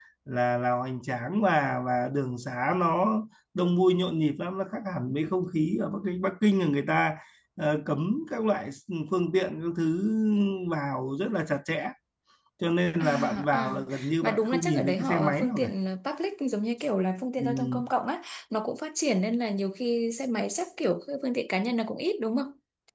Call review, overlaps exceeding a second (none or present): present